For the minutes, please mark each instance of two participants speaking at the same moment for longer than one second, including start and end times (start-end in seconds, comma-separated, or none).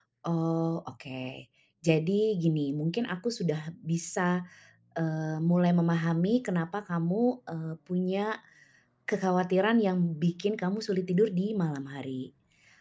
none